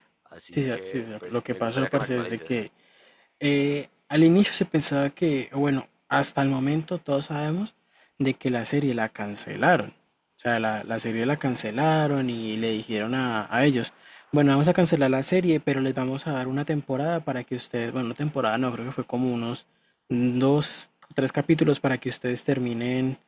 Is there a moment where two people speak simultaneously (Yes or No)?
Yes